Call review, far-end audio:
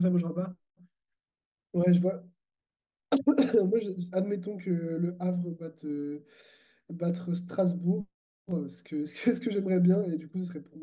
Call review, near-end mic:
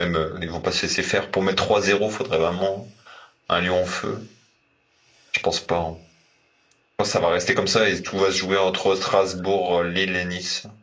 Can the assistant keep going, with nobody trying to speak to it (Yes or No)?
No